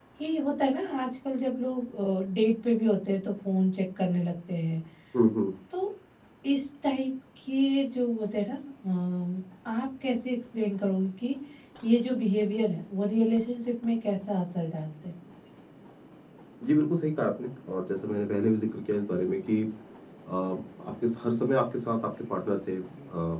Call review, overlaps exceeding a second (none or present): none